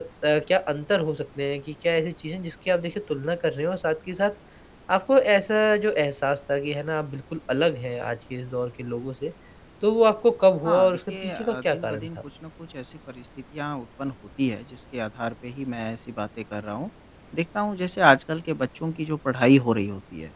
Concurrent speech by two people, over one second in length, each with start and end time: 10.7-12.1

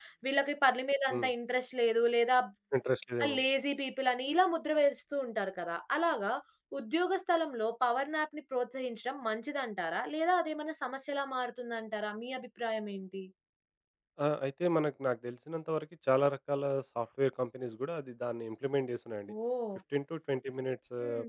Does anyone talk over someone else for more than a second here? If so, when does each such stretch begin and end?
none

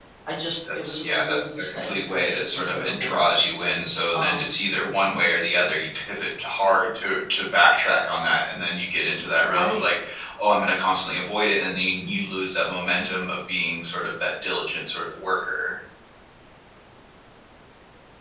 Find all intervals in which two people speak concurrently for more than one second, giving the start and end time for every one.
0.7-3.5

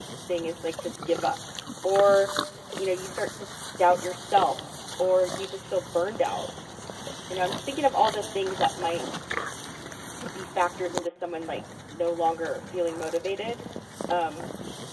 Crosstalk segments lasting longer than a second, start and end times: none

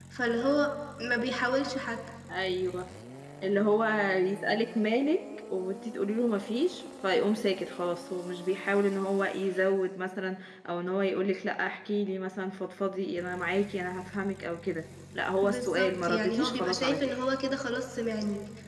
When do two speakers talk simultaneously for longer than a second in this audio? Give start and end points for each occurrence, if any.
15.4-17.1

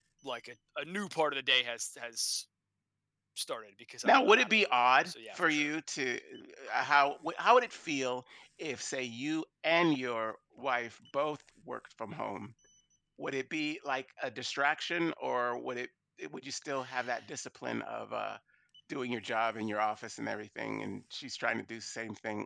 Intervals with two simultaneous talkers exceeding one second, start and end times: 4.0-5.7

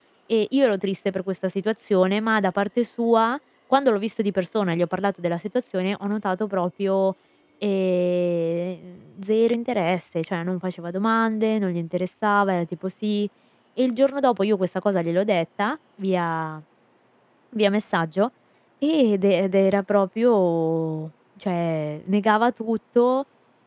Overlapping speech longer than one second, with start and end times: none

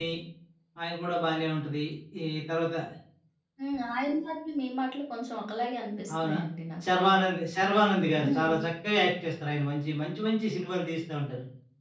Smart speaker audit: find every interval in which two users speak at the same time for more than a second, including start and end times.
none

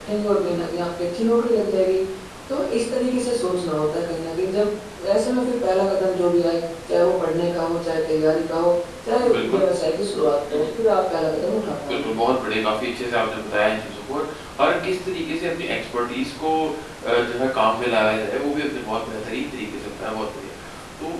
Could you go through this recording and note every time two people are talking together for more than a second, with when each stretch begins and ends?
none

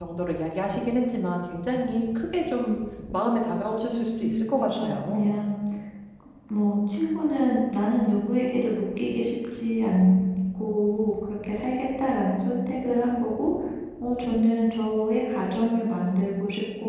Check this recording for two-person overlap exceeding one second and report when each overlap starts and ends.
3.8-5.4

